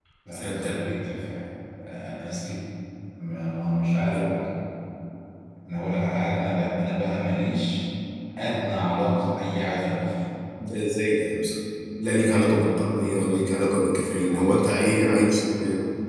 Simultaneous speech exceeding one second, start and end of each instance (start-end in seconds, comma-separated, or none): none